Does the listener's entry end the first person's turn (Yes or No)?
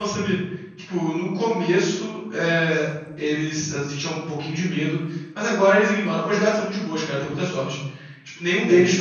No